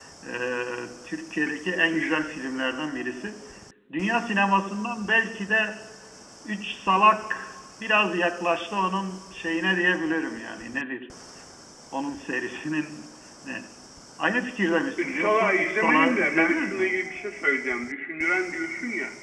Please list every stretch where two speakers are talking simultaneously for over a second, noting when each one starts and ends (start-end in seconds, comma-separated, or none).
15.0-16.9